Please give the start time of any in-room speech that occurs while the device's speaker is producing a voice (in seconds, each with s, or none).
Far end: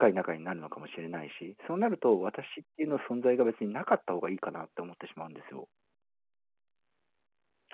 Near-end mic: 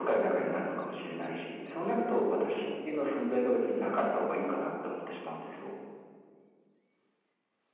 none